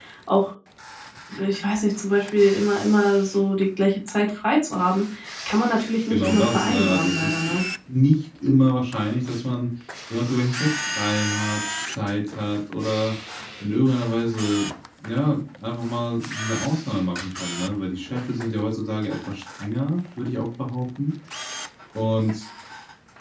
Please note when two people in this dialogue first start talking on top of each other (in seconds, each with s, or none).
6.1 s